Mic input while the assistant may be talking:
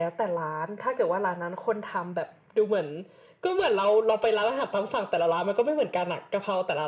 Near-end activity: none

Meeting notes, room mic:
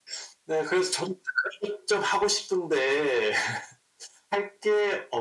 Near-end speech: none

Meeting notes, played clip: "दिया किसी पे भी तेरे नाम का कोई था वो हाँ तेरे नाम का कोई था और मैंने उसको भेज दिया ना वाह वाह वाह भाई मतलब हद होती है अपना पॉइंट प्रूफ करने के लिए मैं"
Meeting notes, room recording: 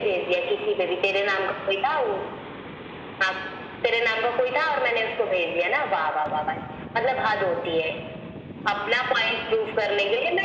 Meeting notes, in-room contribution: none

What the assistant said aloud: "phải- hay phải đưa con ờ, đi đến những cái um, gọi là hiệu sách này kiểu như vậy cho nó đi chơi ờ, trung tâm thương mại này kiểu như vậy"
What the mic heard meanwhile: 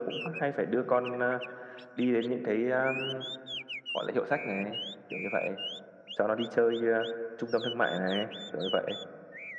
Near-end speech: none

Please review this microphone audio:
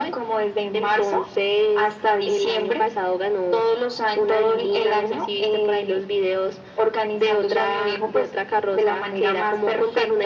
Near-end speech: none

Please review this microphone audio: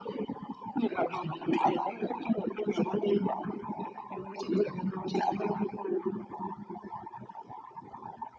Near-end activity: none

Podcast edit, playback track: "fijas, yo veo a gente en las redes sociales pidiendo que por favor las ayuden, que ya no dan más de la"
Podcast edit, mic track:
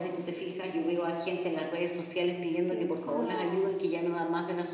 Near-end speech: present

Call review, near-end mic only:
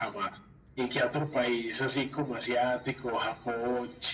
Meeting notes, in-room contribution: none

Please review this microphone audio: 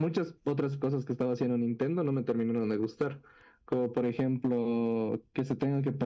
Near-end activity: none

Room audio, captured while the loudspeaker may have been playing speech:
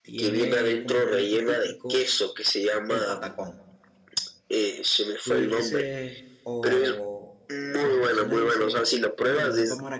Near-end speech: present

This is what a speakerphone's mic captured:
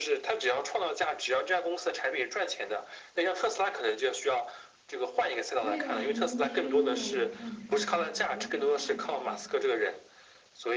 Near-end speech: present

